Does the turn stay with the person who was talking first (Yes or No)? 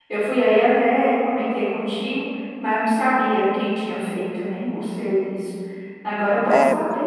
No